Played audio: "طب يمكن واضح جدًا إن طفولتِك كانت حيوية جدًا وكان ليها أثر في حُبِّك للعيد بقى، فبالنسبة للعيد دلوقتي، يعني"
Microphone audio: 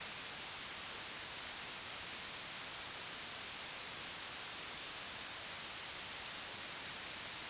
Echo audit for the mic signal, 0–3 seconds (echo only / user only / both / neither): neither